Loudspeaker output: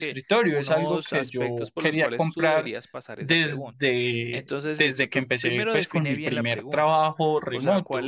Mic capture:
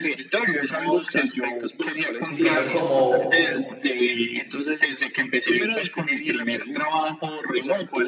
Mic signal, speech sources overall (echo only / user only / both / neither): both